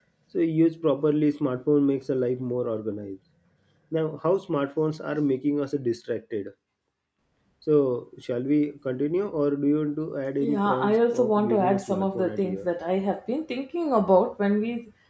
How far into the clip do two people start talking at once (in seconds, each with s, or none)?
10.4 s